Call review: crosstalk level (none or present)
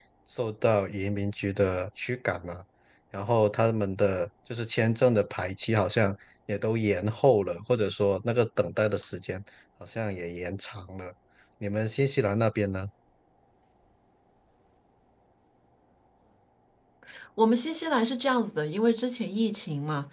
none